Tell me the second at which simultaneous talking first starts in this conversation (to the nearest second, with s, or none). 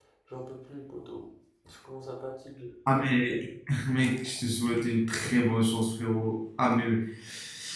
none